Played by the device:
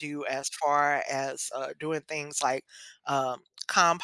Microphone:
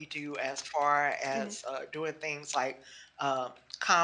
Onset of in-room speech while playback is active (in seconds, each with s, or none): 1.2 s